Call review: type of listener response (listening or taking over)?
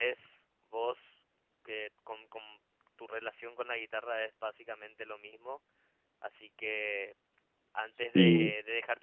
listening